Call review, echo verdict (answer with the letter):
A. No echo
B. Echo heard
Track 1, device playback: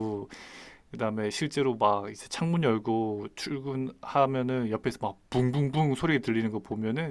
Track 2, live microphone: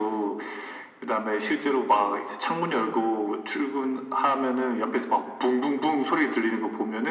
B